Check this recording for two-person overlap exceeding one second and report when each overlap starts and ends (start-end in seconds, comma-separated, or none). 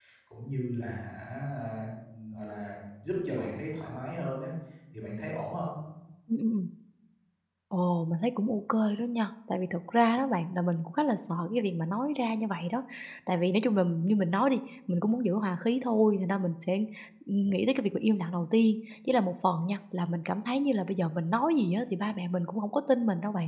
none